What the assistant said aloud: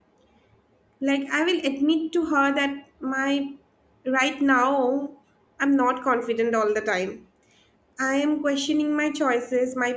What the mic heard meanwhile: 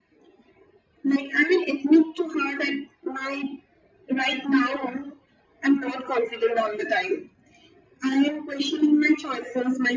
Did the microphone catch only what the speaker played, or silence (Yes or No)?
Yes